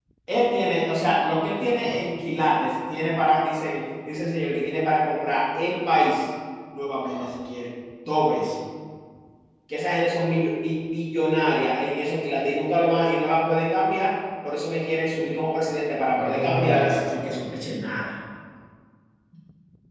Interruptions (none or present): present